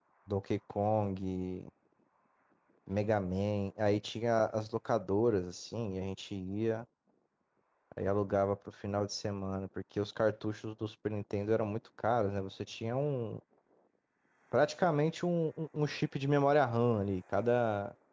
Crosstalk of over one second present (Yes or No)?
No